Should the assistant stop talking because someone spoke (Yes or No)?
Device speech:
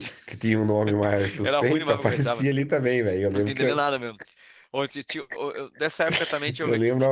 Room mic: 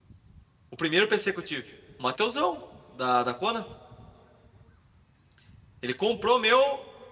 Yes